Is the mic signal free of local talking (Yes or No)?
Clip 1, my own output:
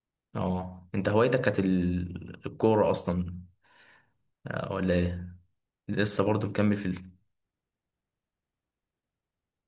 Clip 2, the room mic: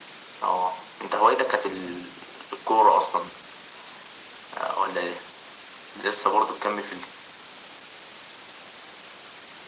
Yes